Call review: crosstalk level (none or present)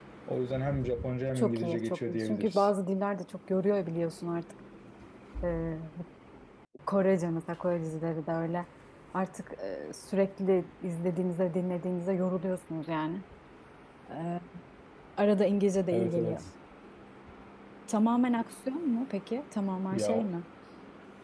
present